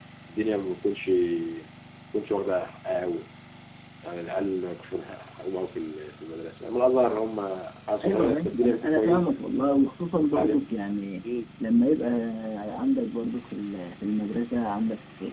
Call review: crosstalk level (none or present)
present